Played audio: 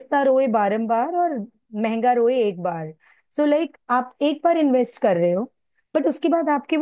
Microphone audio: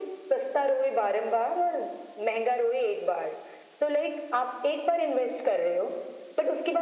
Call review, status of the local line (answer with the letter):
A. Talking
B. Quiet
B